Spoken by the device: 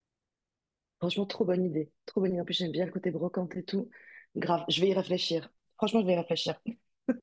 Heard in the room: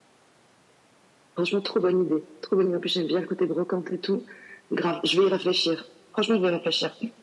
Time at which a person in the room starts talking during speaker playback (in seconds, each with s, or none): none